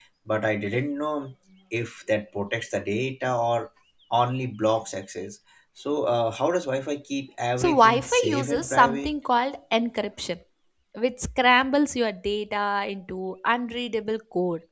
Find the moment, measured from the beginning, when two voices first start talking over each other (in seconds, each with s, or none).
7.6 s